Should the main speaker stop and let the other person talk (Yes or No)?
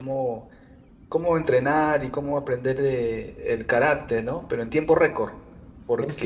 Yes